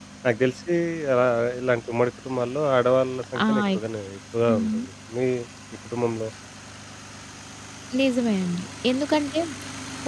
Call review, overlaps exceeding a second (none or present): none